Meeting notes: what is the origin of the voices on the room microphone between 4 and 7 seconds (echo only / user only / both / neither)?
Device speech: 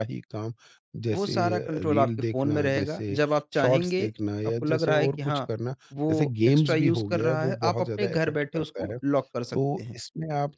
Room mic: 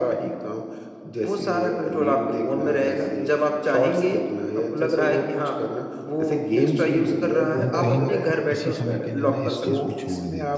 echo only